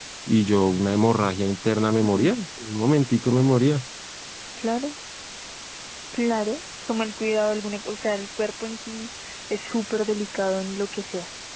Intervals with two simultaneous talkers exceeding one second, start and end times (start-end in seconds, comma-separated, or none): none